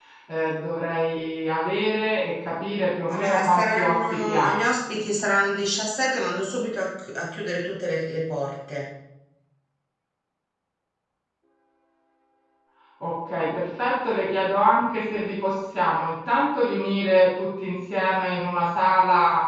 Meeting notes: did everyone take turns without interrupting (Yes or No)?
No